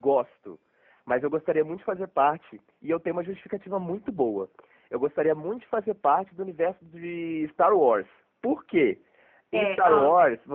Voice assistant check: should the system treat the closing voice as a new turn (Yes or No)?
No